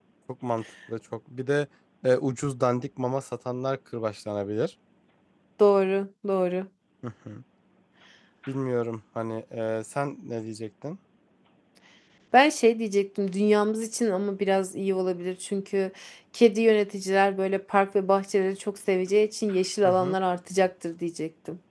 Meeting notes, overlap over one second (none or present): none